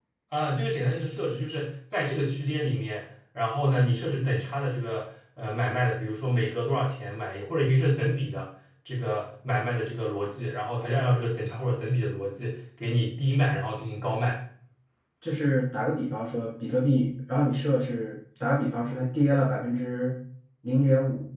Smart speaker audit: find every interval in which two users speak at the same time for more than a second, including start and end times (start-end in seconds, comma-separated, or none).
none